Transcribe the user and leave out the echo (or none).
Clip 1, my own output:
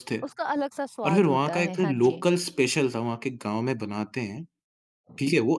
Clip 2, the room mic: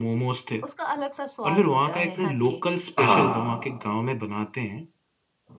हाँ।